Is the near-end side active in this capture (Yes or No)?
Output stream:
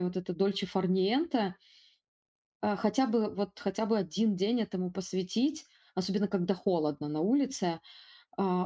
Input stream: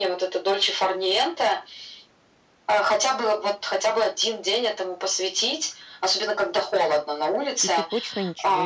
Yes